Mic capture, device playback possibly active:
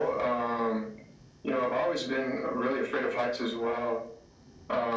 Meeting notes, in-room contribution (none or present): none